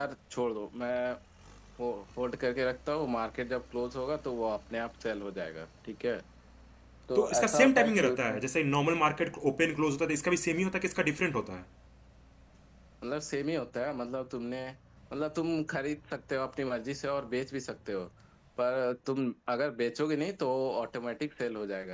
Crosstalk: present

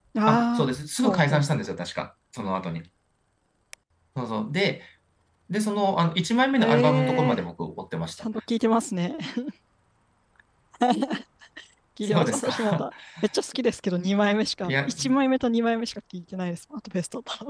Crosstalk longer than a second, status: present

